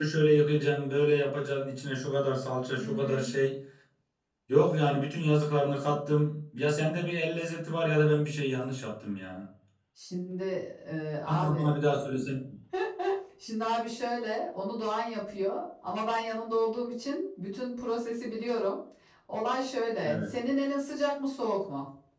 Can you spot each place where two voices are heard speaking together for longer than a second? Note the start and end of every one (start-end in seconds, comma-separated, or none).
none